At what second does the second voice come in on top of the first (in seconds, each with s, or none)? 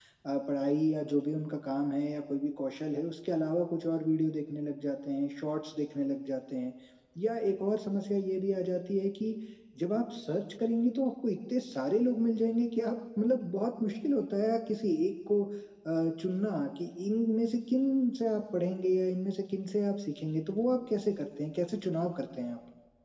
none